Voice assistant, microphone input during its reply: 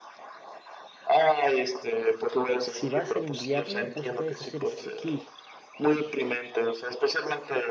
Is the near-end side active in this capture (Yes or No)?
Yes